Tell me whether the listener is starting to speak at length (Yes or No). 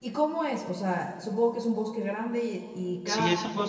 Yes